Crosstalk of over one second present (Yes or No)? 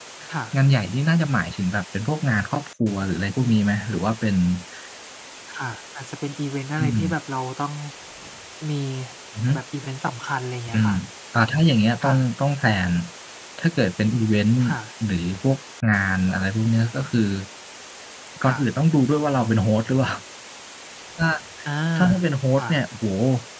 No